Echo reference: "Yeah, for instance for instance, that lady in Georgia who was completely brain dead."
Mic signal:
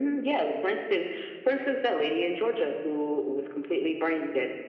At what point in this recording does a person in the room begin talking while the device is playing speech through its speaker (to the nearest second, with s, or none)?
none